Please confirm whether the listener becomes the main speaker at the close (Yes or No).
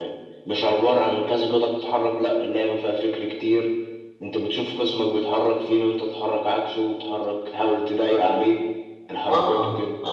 Yes